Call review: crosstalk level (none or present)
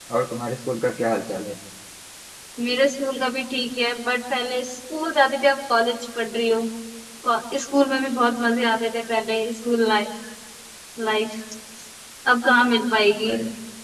none